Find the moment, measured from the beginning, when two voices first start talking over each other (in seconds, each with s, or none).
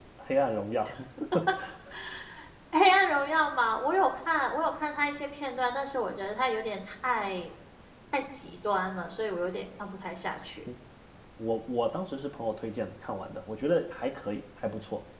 none